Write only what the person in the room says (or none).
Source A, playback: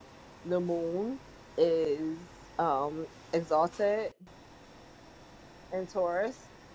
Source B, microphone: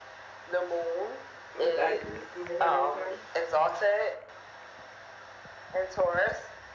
exactly in my Saturn return.